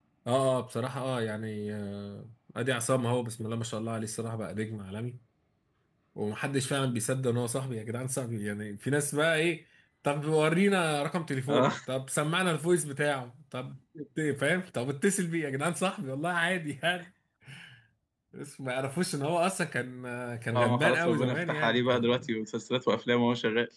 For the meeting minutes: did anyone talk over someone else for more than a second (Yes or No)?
Yes